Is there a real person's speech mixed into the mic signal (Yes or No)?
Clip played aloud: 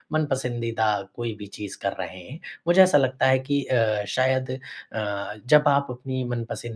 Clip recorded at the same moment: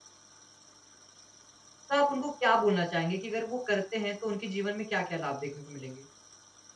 Yes